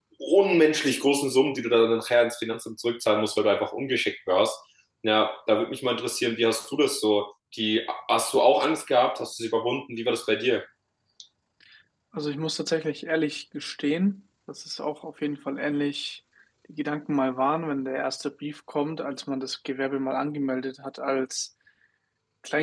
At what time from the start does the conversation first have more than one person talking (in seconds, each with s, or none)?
none